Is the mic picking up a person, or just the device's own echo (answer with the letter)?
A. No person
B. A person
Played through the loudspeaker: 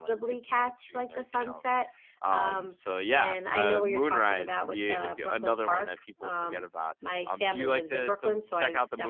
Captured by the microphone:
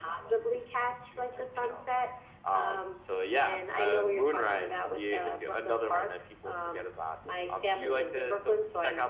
A